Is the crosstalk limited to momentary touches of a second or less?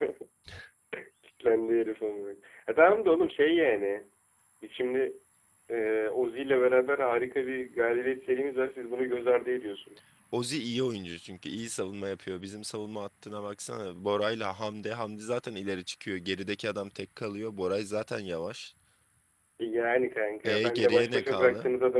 No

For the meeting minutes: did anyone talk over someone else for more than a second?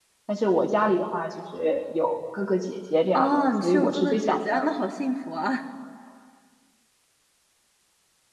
Yes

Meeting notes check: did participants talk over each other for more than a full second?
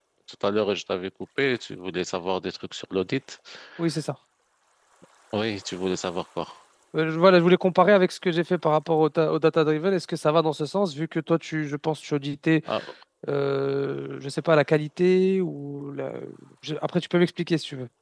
No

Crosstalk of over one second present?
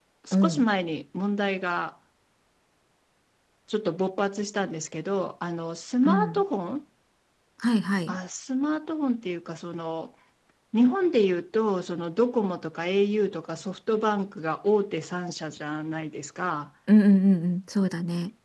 No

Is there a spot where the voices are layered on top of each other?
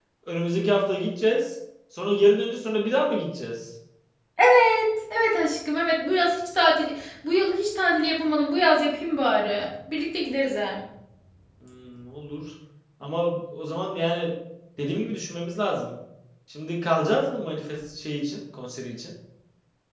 No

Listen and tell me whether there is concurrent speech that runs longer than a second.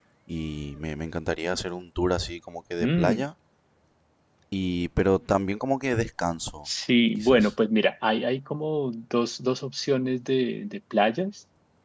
No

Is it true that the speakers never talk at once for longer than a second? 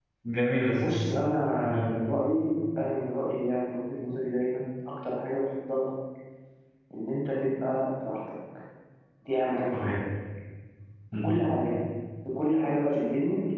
Yes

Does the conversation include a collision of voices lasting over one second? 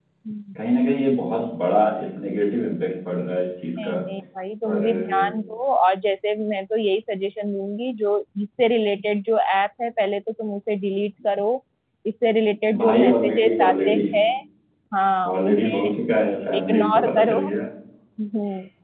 Yes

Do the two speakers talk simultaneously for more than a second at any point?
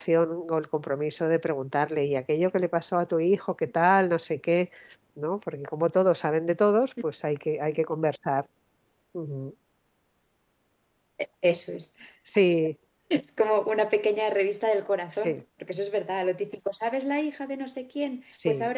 No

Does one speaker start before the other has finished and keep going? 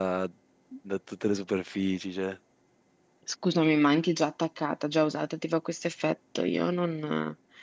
No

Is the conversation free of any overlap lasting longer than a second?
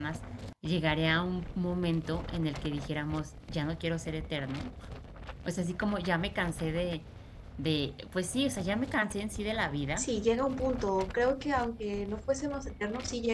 Yes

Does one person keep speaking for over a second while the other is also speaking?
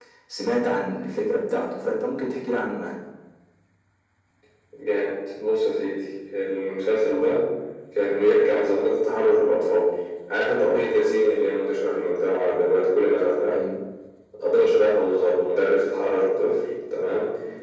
No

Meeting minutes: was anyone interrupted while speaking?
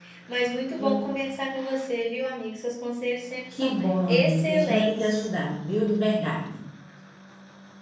Yes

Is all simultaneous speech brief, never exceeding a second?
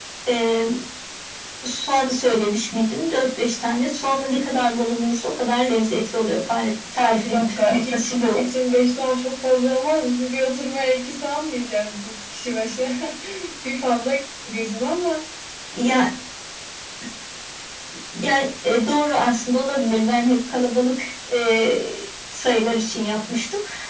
No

